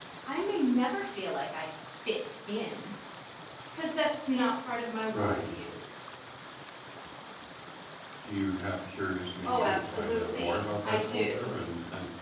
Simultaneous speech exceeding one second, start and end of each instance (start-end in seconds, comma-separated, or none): 9.4-11.5